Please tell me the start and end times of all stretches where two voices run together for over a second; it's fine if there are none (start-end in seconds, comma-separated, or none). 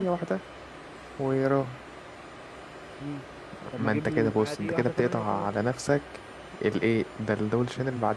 3.8-5.5